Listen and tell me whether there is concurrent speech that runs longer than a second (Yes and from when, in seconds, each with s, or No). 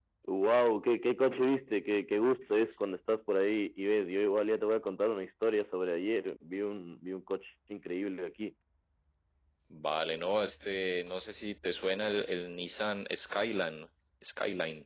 No